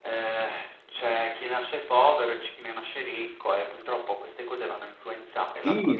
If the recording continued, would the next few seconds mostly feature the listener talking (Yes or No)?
Yes